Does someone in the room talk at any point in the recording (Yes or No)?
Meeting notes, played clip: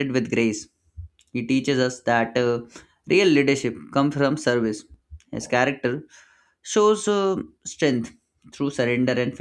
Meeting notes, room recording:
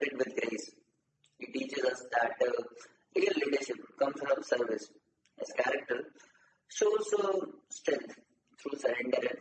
No